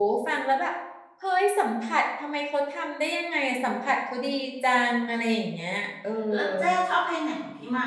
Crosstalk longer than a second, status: none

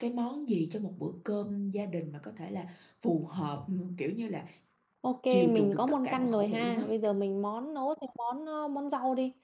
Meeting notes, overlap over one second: present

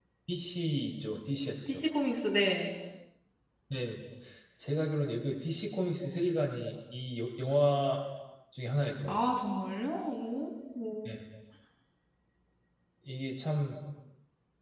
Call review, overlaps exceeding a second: none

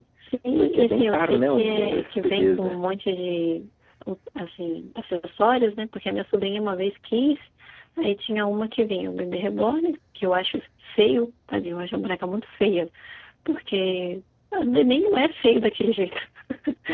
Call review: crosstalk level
present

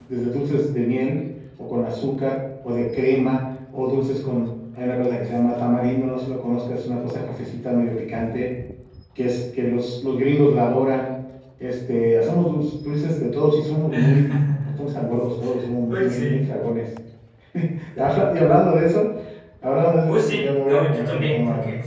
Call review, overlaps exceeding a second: present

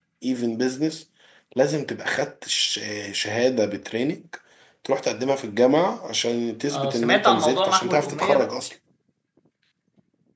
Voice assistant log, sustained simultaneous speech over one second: present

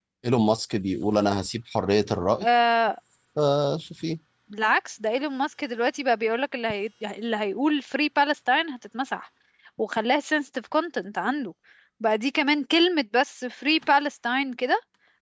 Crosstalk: none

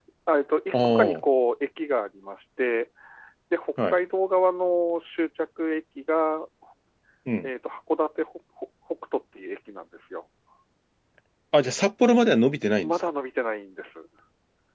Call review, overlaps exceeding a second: none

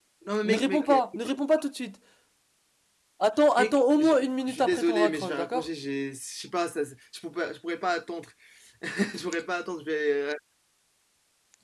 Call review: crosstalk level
present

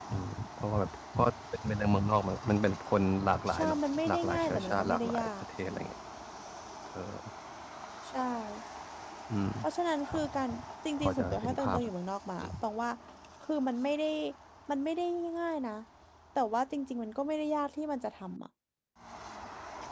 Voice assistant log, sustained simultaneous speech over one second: present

